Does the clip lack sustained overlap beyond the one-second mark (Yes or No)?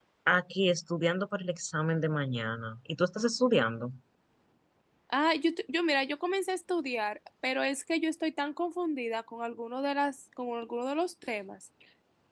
Yes